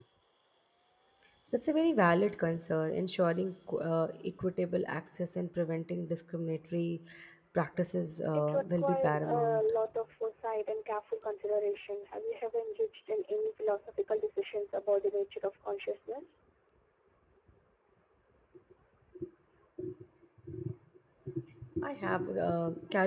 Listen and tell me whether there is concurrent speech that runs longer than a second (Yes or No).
Yes